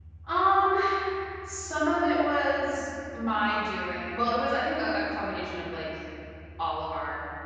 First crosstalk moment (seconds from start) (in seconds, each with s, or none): none